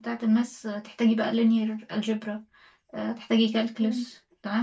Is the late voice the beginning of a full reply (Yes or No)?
No